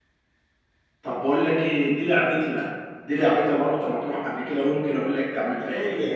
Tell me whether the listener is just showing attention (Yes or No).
No